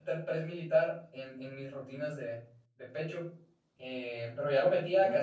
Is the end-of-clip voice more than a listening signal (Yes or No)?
No